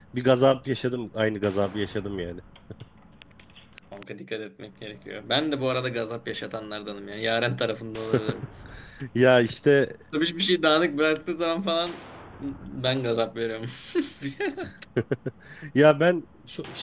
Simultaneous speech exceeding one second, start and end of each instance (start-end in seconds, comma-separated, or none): none